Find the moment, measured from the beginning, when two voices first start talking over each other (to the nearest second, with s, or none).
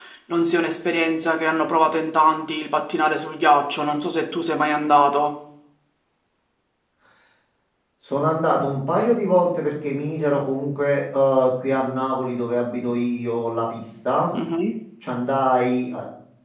none